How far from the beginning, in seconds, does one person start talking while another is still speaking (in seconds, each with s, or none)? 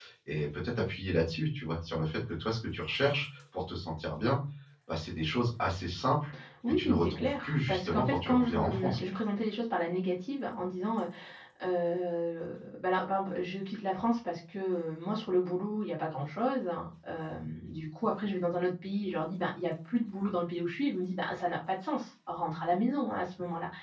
6.7 s